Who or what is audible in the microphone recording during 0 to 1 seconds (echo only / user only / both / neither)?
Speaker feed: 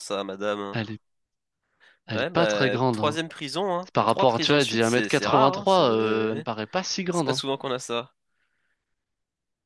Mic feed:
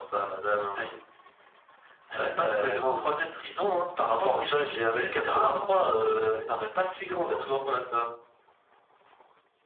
echo only